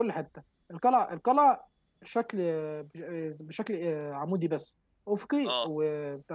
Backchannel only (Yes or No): Yes